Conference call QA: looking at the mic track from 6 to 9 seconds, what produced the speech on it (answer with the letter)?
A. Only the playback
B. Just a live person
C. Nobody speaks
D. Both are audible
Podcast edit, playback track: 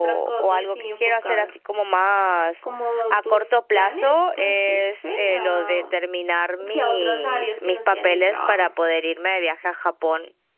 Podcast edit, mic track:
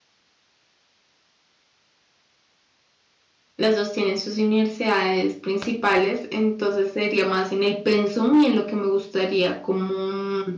B